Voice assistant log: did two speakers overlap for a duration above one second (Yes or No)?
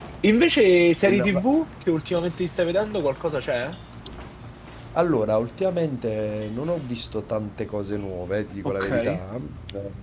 No